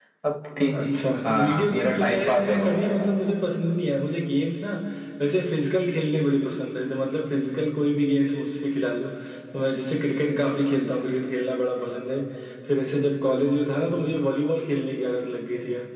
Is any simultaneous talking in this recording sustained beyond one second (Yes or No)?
Yes